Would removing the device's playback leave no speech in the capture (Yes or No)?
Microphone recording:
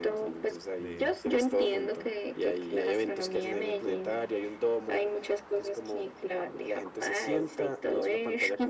No